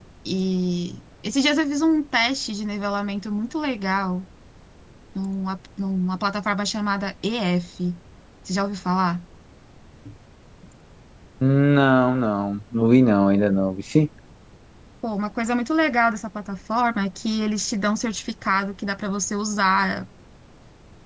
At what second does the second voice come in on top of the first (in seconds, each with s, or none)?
none